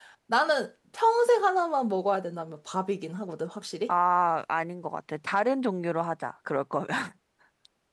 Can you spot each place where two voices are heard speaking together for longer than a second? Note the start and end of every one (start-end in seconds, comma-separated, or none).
none